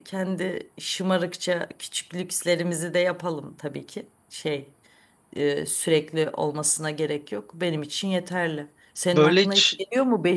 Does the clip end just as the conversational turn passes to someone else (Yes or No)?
No